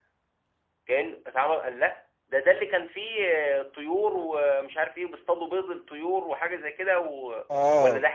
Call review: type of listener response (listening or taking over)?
taking over